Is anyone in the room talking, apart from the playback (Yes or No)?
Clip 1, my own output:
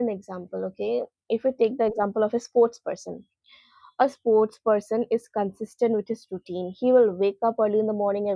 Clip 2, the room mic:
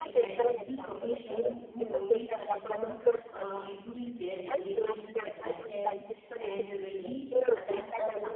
Yes